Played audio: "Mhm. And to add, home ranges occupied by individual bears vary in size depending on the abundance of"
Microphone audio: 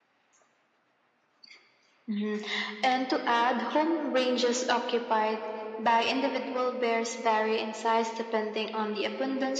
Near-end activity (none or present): none